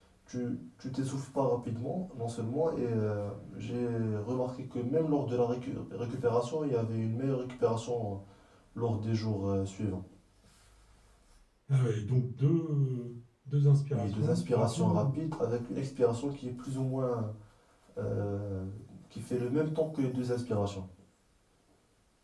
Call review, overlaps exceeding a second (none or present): present